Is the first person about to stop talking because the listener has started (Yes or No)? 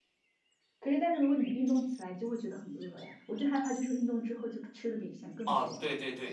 Yes